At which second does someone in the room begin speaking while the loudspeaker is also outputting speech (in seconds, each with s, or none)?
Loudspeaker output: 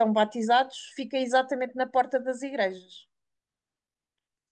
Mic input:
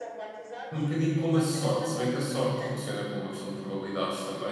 0.7 s